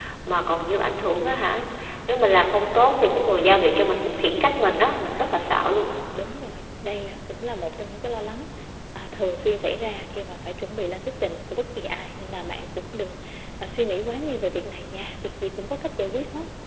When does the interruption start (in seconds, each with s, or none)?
none